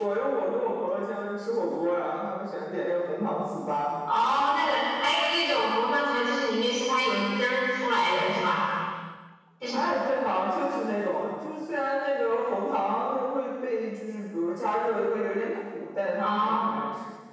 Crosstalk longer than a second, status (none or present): none